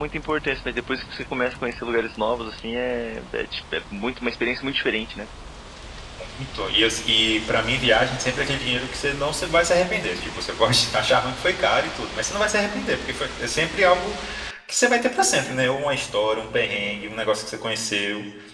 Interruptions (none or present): none